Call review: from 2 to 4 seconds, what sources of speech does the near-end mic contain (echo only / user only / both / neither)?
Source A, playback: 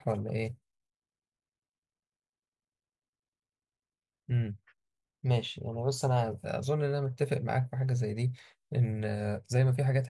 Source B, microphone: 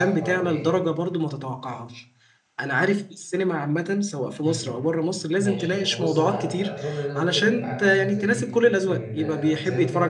user only